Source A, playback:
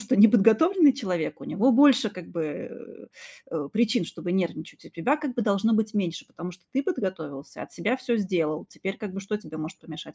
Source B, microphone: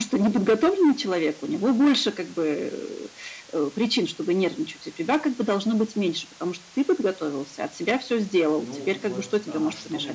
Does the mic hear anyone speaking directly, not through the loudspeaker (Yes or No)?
Yes